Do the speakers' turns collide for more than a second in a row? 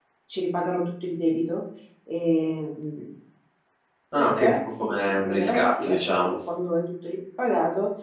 Yes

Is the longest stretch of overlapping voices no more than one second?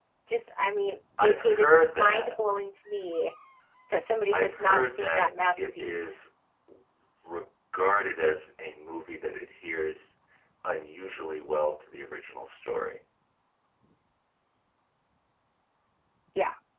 No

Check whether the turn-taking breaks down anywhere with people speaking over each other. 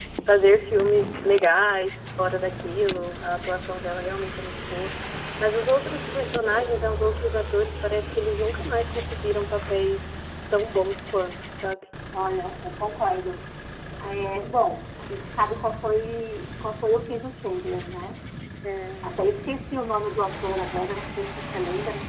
No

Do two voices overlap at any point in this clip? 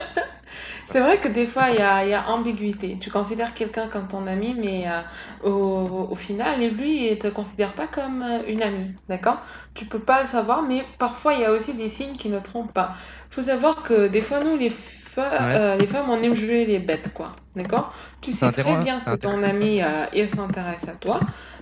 Yes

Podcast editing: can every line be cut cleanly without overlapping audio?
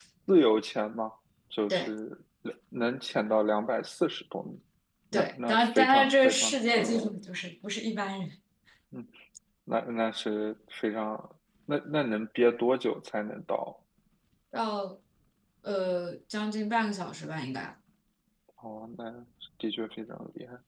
No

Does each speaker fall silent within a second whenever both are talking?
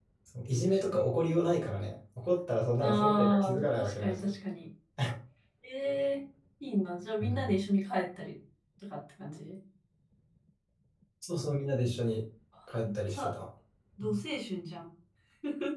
No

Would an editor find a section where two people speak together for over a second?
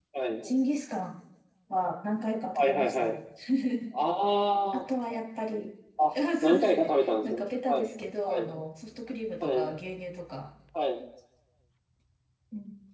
Yes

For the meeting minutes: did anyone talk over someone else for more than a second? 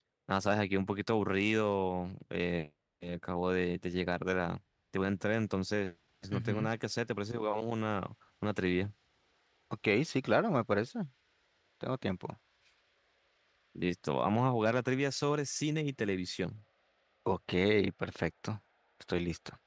No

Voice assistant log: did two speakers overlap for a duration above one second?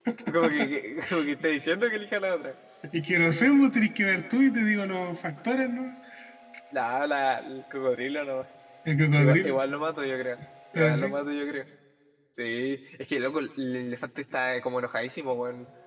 No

